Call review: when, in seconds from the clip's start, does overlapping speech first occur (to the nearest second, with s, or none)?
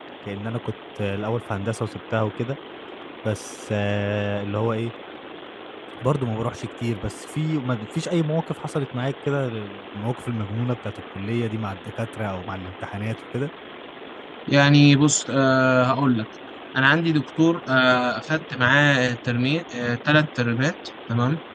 none